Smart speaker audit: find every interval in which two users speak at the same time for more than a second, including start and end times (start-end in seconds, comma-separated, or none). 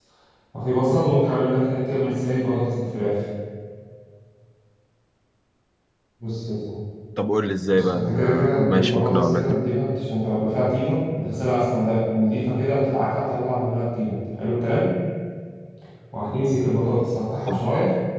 7.7-9.6